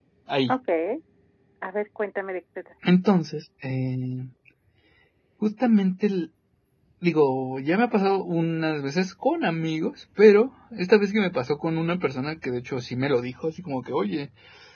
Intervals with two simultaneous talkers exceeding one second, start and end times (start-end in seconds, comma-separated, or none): none